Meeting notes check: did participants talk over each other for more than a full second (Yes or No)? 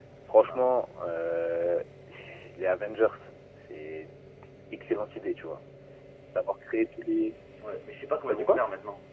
No